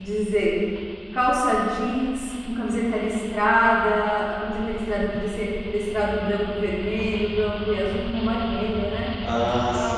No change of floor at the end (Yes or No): No